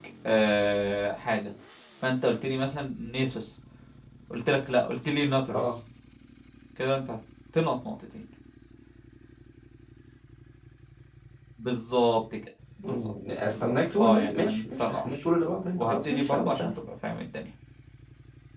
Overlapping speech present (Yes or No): Yes